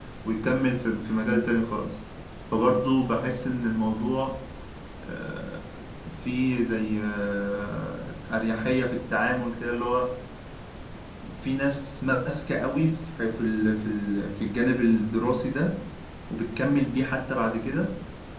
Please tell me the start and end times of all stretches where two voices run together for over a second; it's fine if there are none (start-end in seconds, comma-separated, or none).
none